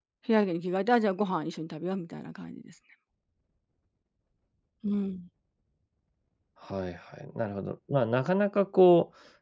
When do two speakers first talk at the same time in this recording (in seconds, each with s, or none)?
none